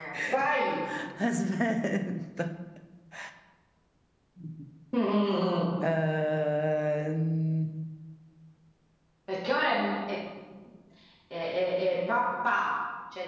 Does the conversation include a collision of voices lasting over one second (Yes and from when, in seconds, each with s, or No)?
No